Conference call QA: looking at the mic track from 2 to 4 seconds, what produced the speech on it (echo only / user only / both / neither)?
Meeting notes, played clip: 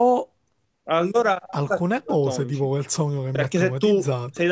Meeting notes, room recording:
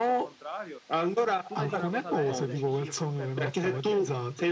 both